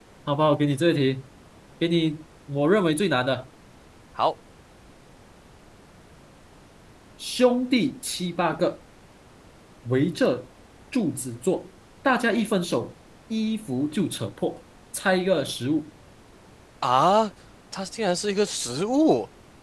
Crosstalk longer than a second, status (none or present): none